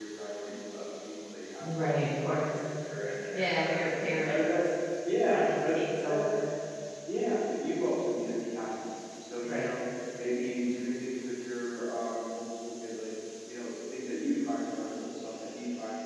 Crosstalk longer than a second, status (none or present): present